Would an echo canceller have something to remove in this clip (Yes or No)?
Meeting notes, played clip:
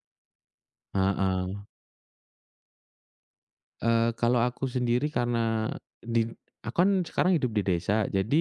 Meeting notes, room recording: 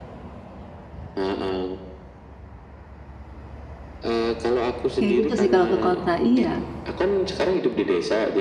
Yes